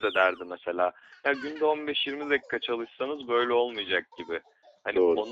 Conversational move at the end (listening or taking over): listening